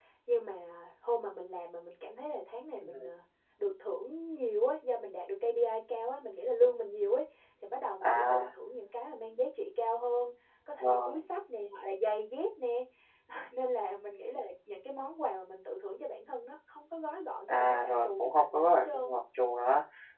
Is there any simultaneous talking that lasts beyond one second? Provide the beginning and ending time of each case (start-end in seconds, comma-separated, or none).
17.5-19.2